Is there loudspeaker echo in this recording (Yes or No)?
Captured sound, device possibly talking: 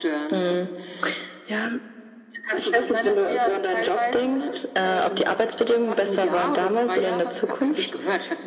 Yes